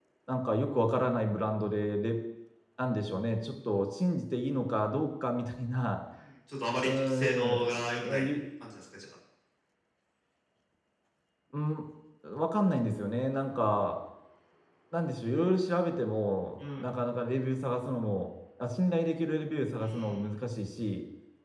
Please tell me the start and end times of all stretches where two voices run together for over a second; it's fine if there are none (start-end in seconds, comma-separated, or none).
6.8-8.2